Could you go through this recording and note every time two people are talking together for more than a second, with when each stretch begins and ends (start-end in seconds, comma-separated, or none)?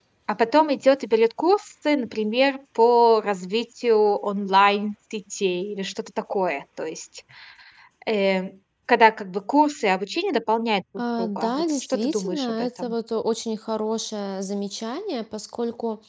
11.2-12.9